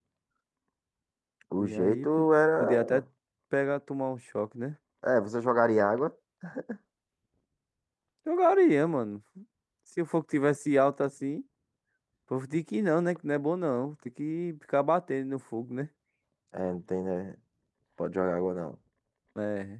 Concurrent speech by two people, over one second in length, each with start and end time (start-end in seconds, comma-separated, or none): 1.6-3.0